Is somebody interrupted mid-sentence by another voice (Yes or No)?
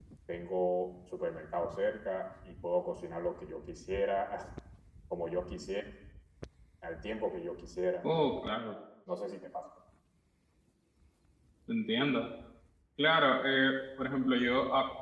No